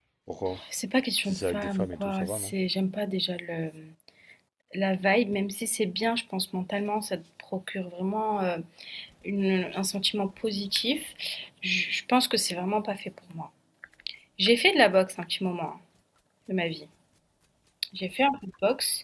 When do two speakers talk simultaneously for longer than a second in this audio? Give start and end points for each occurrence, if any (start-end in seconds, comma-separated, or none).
1.2-2.5